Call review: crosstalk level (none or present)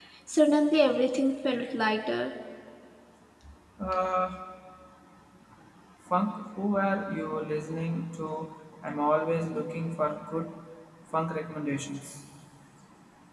none